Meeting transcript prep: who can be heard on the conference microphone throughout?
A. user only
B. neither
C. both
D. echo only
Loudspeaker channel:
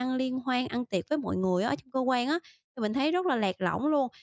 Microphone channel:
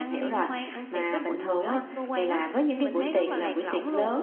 C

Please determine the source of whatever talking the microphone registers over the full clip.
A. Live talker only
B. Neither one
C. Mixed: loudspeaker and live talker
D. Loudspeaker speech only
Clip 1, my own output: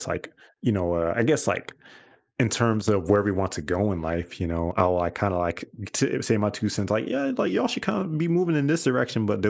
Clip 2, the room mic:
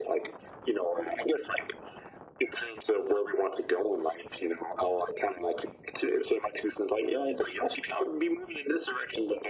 D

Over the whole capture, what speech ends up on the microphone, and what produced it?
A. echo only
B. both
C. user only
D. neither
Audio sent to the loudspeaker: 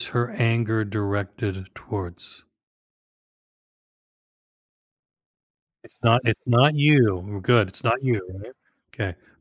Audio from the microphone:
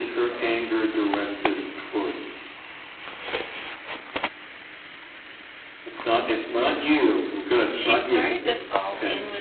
B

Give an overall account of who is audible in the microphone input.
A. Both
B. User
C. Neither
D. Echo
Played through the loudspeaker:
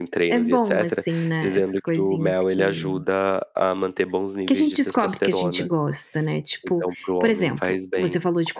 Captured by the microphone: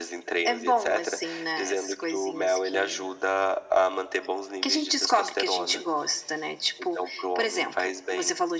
D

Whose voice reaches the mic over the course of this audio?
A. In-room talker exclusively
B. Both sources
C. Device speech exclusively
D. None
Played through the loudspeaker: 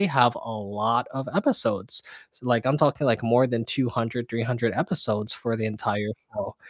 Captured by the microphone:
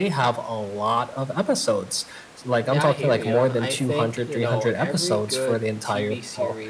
B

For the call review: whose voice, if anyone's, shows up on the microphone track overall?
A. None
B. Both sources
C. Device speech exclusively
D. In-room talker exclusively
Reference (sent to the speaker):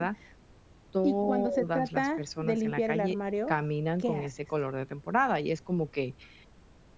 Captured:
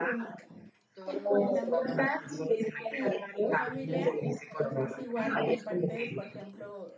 B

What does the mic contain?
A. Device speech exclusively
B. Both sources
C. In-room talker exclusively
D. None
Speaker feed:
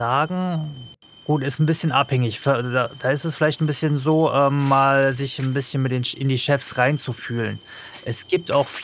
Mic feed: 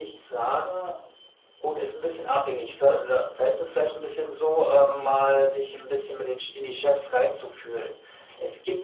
A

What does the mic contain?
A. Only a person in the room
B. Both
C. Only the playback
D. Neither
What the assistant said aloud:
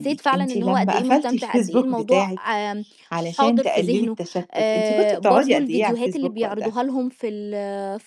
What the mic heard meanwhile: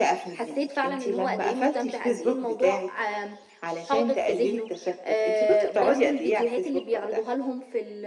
C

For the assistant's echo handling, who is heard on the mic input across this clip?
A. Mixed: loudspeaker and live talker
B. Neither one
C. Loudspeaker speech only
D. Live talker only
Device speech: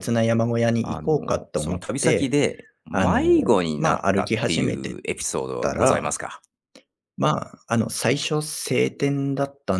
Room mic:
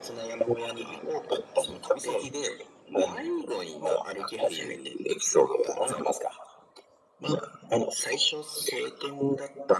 C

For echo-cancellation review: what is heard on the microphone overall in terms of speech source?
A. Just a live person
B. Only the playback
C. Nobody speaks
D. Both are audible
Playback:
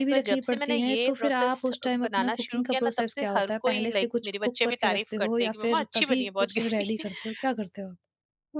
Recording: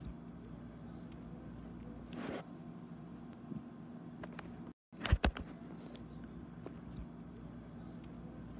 C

